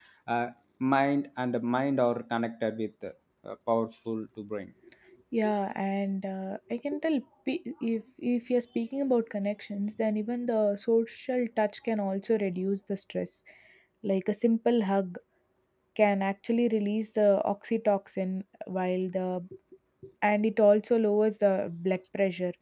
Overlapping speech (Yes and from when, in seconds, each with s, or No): No